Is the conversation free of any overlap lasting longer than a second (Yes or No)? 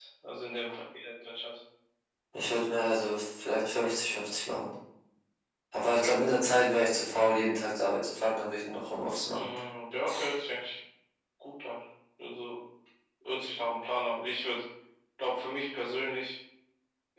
Yes